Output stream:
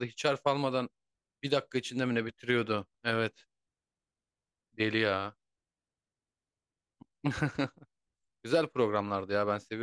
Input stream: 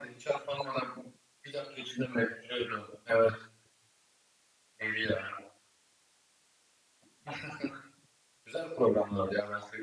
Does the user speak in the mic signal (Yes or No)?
No